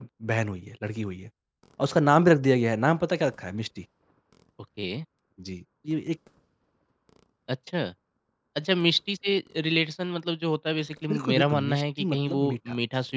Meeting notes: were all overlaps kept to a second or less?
No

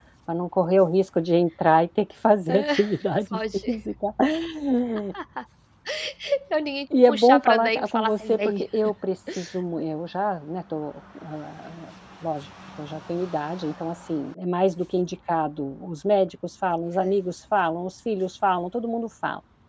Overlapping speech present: Yes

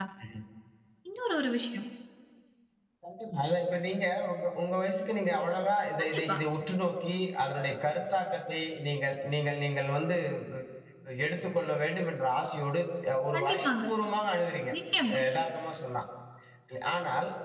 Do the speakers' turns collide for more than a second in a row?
No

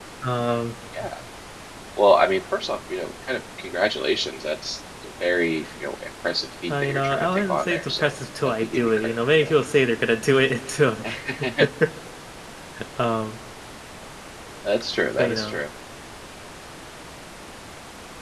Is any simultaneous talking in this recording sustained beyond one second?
Yes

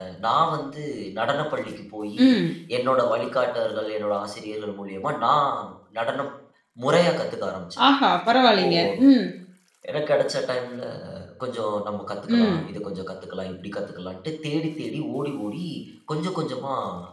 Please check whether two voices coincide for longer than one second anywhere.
No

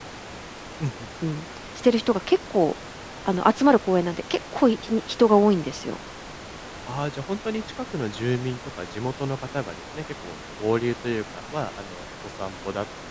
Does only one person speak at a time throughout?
Yes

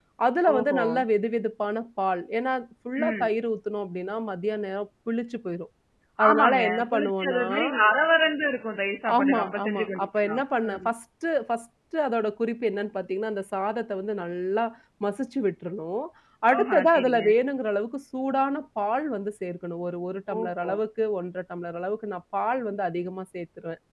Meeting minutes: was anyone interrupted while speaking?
Yes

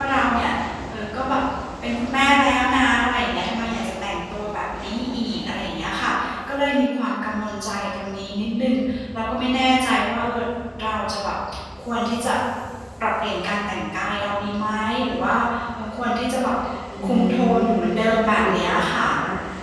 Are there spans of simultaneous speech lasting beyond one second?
Yes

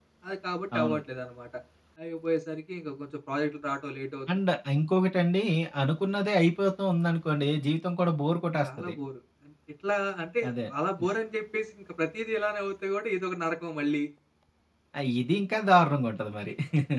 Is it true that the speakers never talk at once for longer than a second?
Yes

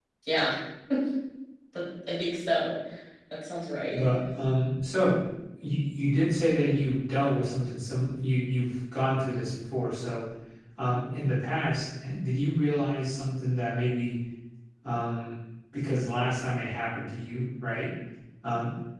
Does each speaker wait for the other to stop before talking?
Yes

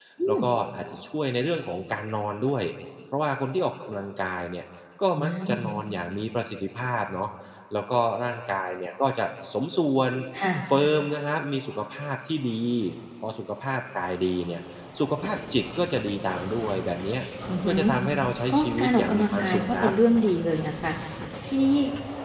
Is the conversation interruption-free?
No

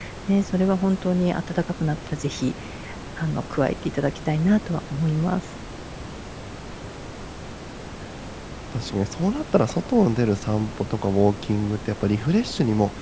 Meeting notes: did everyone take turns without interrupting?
Yes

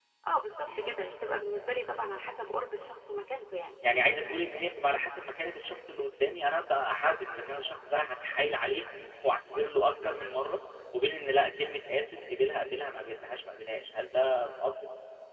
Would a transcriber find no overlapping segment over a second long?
Yes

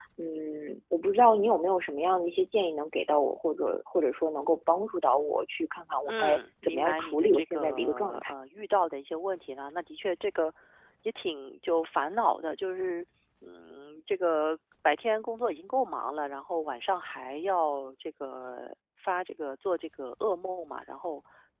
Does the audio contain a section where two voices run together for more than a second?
Yes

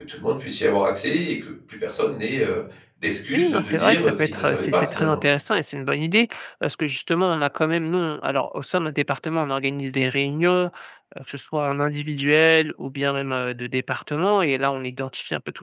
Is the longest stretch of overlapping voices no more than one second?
No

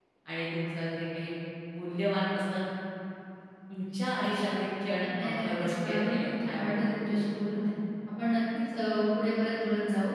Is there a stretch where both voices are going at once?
Yes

